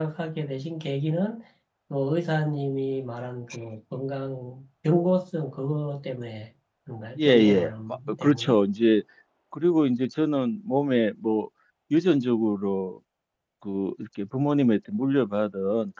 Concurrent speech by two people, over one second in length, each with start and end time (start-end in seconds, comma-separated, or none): 7.2-8.6